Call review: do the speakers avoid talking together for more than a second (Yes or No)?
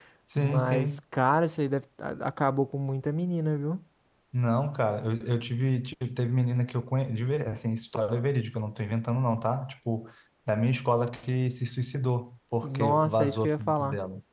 No